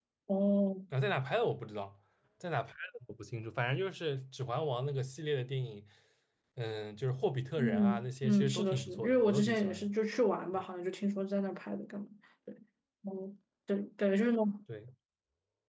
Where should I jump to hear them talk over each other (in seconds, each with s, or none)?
7.6 s